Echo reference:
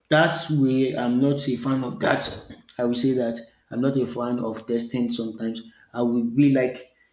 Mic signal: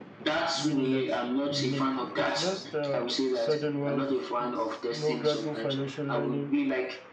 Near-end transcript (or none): winning that's unique, it's just uh, sudden wealth, it's no gradual financial learning